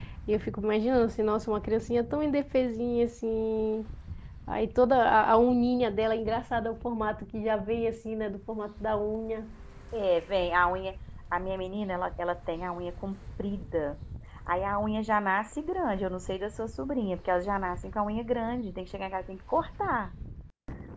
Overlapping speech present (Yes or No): No